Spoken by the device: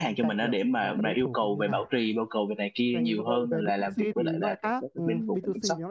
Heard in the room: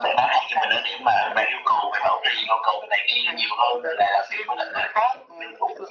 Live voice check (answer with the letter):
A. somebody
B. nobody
B